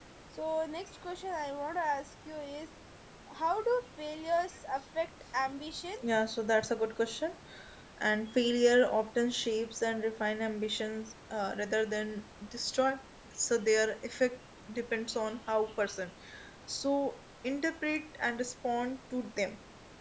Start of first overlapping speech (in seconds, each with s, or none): none